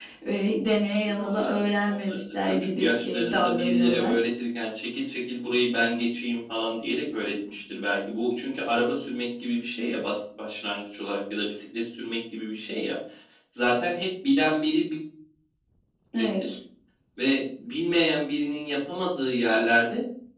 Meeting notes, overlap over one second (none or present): present